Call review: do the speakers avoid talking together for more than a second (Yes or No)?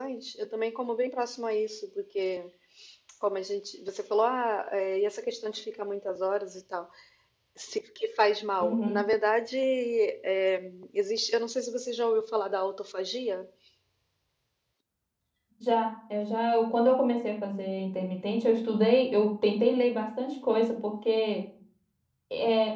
Yes